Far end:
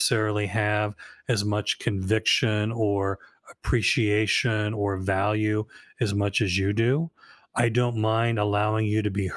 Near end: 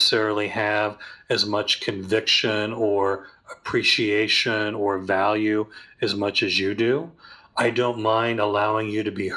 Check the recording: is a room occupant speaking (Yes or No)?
No